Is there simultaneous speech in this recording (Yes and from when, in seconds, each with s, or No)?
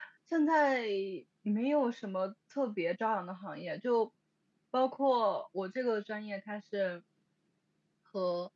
No